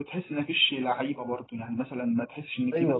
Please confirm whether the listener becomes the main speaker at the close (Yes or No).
Yes